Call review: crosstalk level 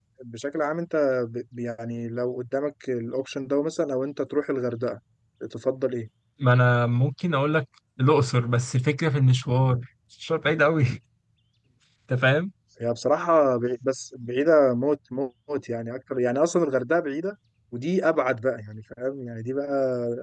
none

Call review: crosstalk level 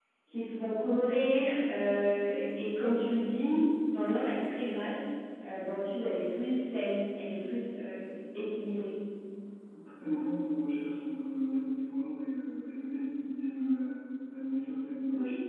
none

